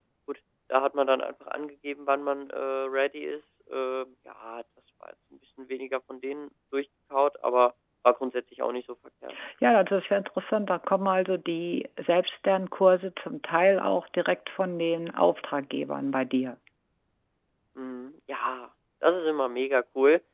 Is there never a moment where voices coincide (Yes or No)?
Yes